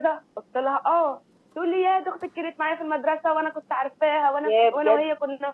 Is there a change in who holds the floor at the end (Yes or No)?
No